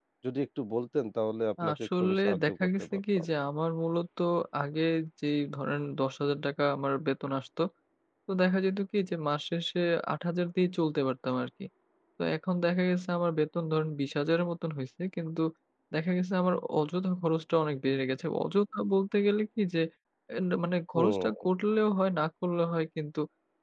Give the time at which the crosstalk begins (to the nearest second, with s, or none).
2 s